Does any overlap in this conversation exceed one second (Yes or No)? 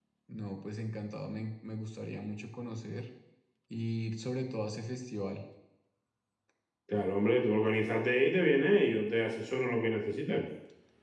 No